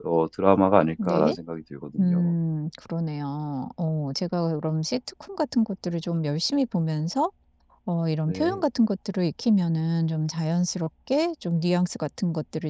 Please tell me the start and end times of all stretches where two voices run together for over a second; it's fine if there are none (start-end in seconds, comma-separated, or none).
none